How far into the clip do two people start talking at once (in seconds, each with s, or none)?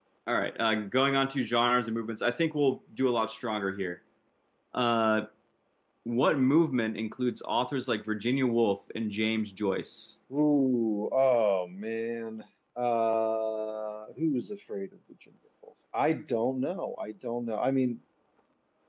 none